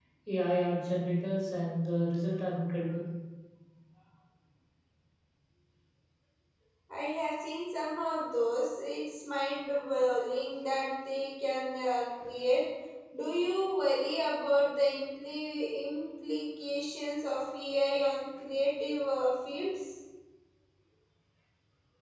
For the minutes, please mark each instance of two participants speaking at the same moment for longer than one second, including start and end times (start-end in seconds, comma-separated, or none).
none